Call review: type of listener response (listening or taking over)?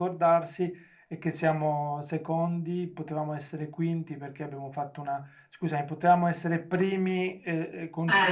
listening